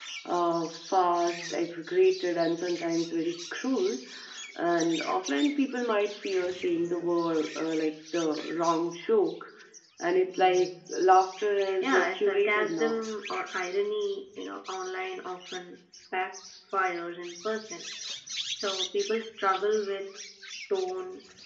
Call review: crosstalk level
present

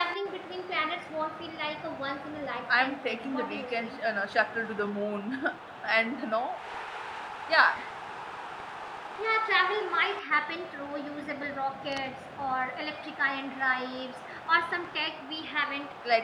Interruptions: present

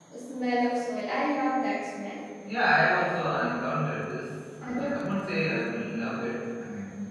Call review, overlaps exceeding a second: none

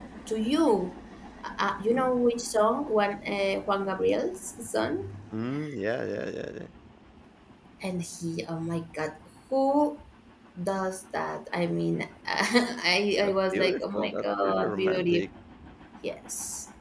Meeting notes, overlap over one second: present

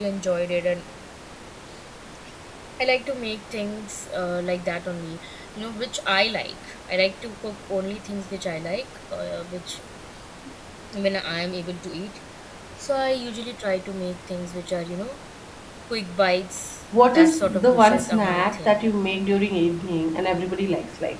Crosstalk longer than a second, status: present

